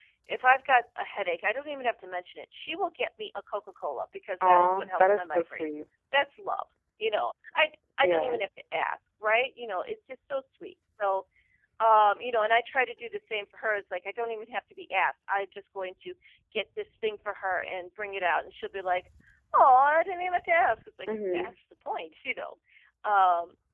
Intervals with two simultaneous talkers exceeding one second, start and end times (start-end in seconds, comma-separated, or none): 4.4-5.6